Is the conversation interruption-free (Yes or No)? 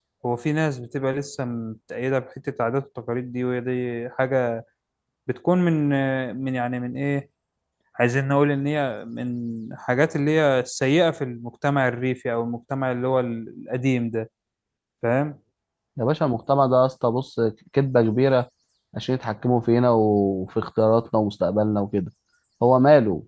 Yes